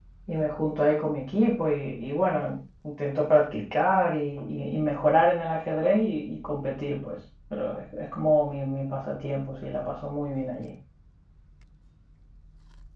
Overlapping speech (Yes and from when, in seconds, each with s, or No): No